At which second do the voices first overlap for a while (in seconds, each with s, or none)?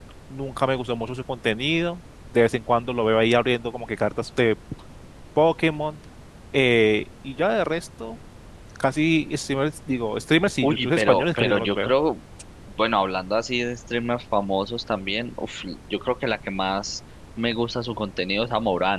10.6 s